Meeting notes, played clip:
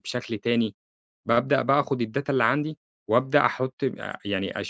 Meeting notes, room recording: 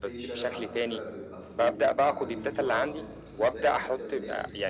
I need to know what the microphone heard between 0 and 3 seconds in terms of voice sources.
both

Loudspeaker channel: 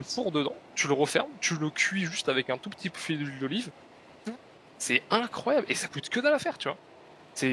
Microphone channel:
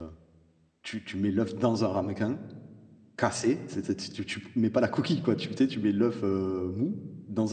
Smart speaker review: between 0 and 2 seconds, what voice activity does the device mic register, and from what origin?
user only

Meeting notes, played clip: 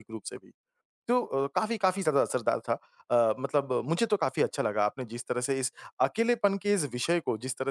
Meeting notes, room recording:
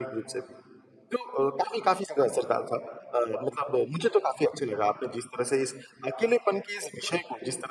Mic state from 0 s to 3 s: echo only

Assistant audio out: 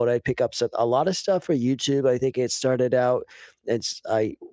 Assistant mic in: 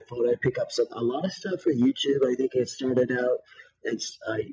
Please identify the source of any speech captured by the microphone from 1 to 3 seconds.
echo only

